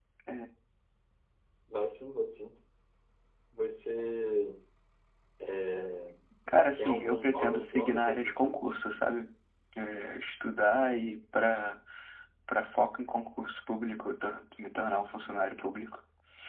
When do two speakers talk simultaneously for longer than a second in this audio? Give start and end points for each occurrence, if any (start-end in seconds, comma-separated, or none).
6.8-8.6